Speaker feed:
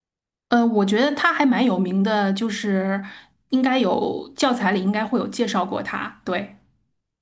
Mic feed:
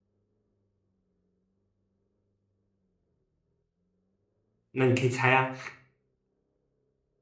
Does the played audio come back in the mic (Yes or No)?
No